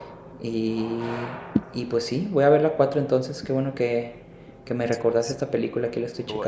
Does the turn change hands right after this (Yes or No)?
Yes